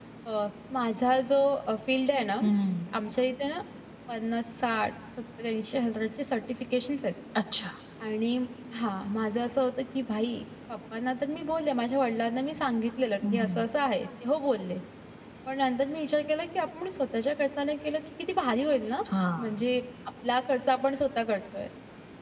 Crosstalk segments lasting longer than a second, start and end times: none

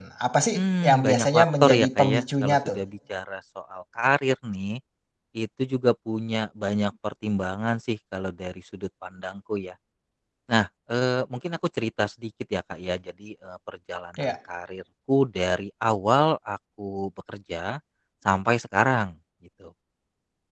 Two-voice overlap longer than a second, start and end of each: 0.5-2.8

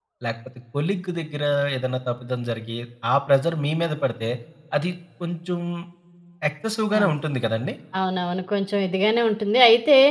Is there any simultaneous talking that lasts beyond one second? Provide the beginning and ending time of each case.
none

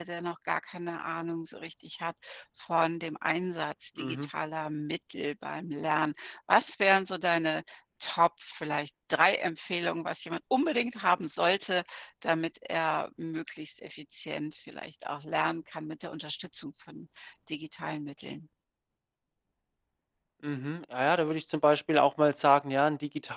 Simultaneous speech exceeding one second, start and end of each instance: none

